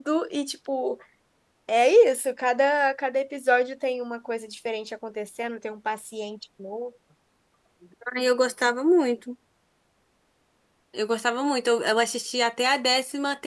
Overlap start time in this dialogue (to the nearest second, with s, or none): none